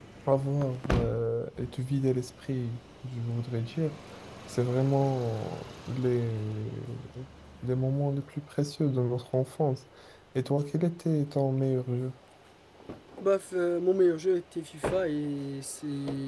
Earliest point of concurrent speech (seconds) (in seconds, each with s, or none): none